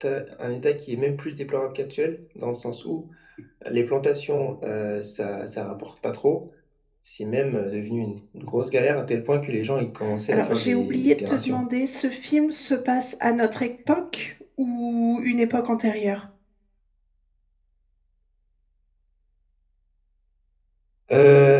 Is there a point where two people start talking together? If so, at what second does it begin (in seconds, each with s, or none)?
10.0 s